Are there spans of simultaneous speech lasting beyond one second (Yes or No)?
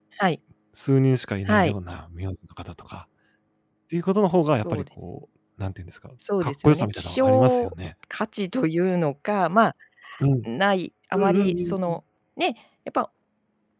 Yes